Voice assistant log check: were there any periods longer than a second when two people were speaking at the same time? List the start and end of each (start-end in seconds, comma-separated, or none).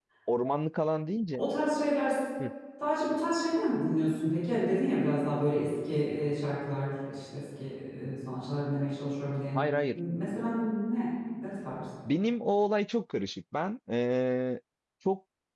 none